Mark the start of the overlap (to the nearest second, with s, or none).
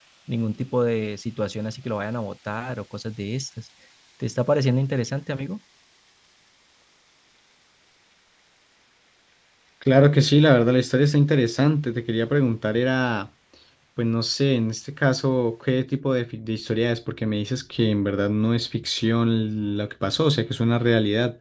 none